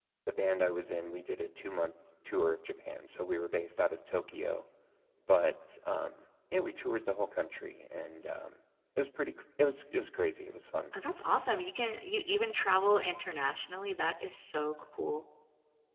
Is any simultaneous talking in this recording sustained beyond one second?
No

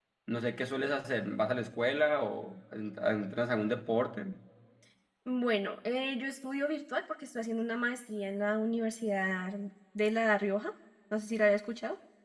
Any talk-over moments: No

